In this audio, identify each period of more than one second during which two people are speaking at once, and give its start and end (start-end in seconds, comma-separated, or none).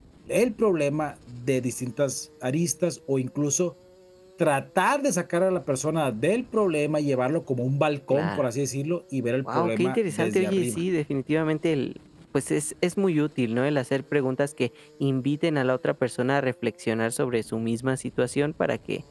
9.5-10.8